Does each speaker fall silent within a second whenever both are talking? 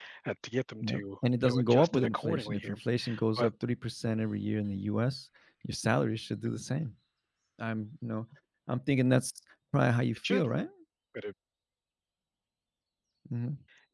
No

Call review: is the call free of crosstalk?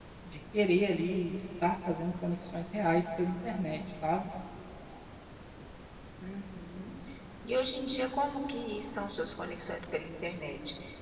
Yes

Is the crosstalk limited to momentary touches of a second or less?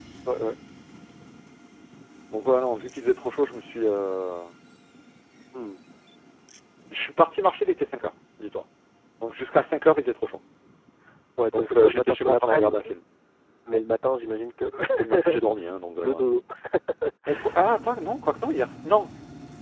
No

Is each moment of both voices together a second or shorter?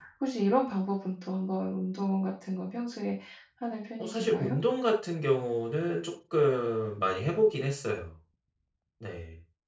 Yes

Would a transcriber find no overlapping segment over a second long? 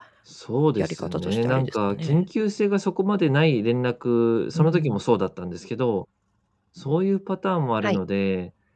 No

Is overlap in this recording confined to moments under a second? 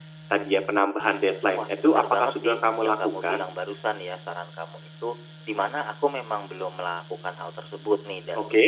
No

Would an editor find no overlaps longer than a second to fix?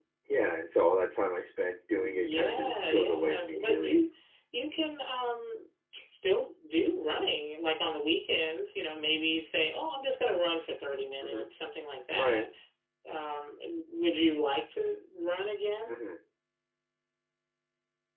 No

